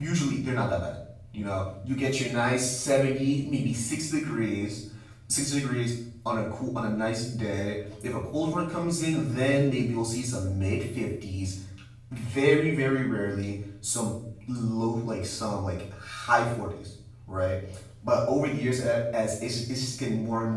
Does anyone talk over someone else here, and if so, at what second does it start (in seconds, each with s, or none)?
none